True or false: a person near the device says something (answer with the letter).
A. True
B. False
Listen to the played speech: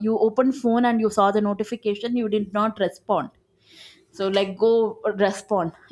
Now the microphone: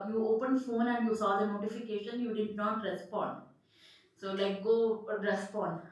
B